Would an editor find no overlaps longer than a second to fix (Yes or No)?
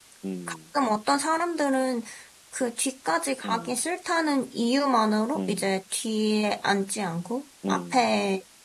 Yes